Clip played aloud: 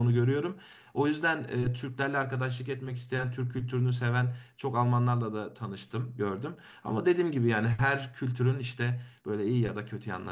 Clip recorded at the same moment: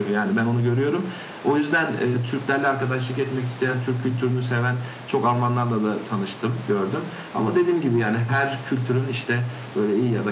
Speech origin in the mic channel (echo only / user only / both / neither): echo only